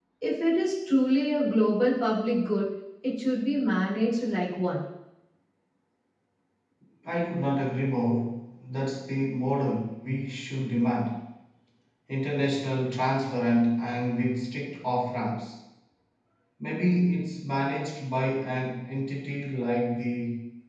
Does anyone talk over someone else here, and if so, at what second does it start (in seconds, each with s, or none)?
none